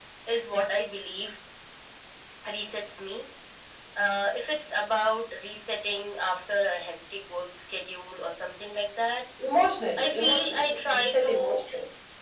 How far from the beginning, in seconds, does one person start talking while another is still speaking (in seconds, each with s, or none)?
10.0 s